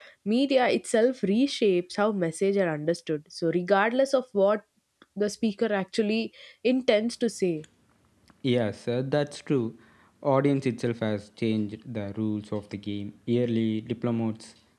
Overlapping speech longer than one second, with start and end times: none

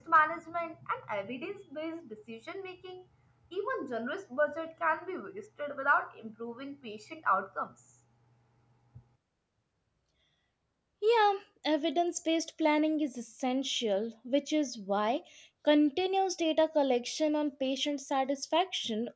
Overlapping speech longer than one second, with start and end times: none

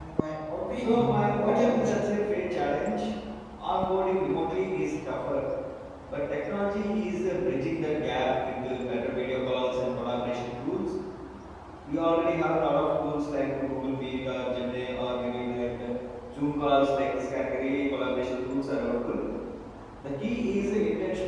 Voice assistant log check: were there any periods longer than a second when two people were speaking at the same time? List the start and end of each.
0.8-2.1

